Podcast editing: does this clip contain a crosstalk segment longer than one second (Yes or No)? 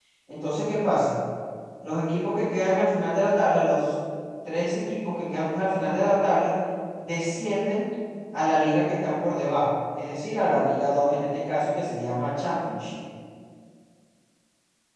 No